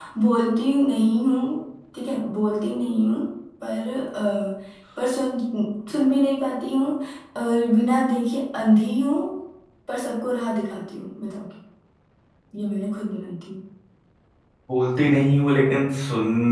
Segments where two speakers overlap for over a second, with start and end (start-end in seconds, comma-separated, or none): none